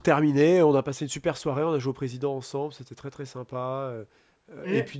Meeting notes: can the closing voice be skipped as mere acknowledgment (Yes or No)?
Yes